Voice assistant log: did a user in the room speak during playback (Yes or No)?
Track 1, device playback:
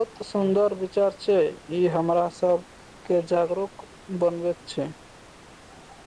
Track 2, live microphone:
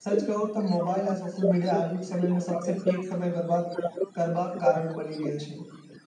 Yes